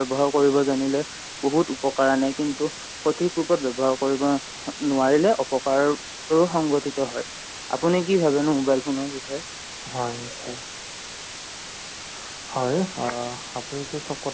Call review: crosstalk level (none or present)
none